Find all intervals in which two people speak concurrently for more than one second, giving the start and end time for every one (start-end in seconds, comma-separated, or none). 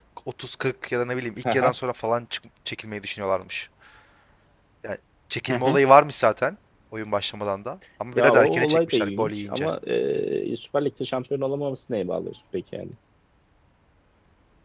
8.1-9.7